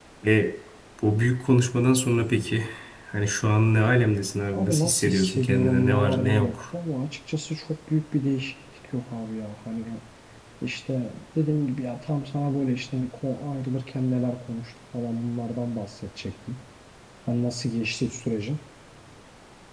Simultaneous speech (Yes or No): Yes